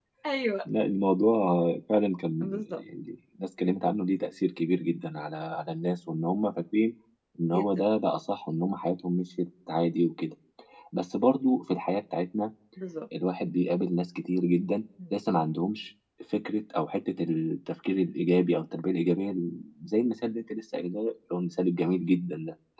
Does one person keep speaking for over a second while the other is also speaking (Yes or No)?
No